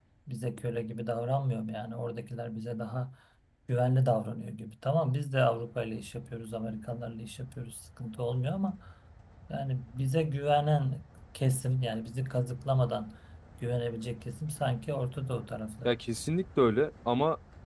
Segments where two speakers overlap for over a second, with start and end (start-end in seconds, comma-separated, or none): none